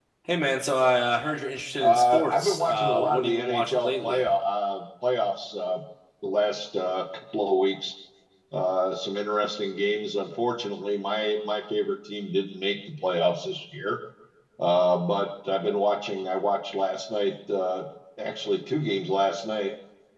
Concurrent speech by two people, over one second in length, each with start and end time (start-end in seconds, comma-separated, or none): 1.8-4.2